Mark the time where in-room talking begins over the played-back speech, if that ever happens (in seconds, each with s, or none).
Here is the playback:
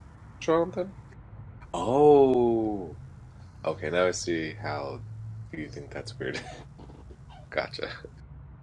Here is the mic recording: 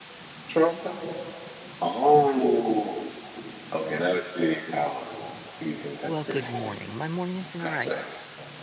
6.1 s